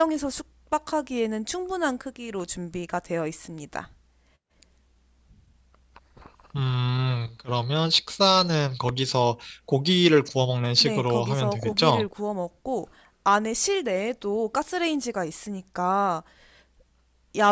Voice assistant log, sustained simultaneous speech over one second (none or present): present